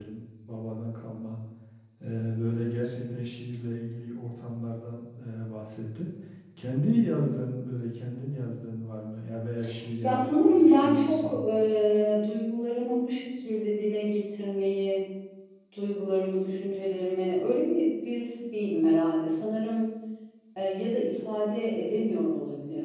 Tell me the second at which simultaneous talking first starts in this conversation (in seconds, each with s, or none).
10.0 s